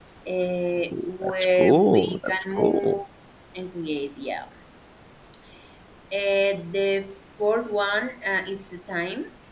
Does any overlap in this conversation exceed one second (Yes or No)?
Yes